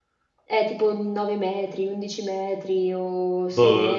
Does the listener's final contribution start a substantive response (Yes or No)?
Yes